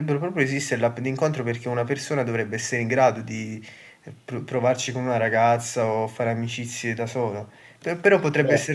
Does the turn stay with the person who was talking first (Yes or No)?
Yes